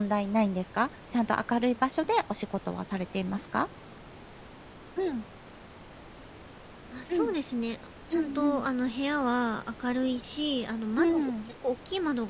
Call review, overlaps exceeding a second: none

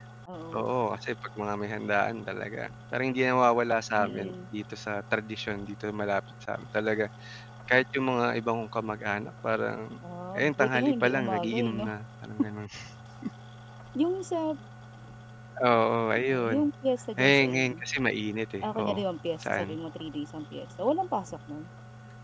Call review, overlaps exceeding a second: present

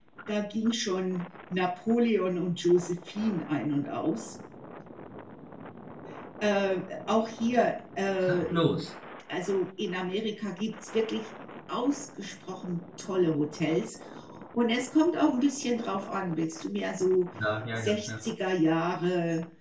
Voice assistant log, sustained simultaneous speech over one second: none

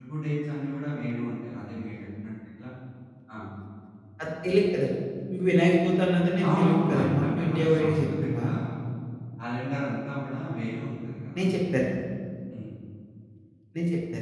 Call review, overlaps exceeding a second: present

